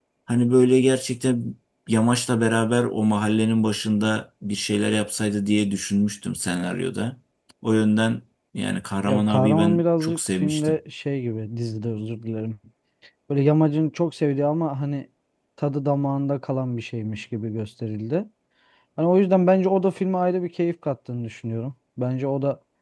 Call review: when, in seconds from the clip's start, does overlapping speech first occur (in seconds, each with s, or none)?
9.1 s